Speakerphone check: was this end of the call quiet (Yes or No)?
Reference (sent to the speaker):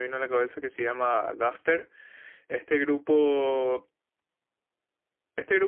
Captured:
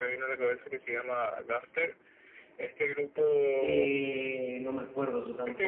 No